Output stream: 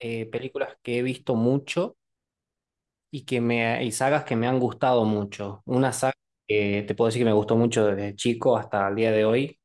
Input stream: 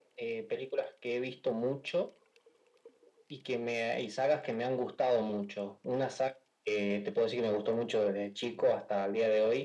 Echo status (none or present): present